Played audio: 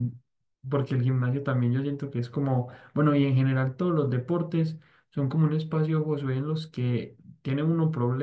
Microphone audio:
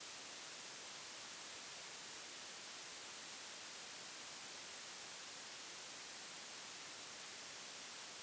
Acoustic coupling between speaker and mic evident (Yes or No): No